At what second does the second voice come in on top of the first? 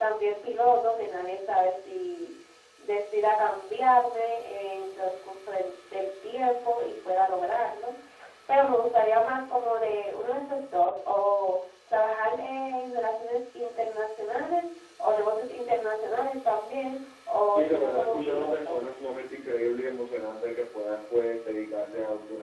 17.5 s

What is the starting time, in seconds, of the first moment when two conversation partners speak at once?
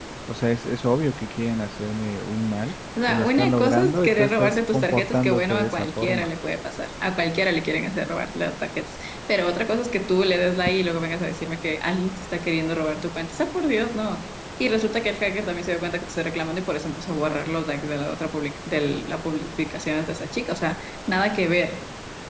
3.1 s

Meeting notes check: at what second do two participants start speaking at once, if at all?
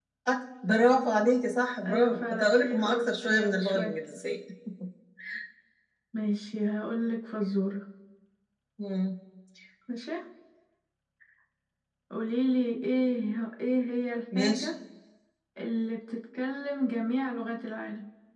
1.8 s

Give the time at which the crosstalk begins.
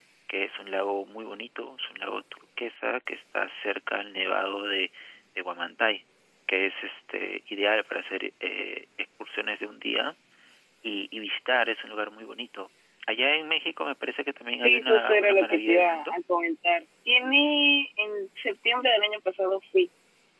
14.6 s

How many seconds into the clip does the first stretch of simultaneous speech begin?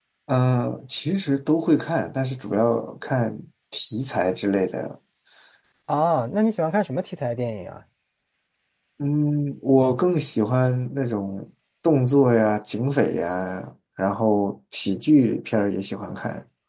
none

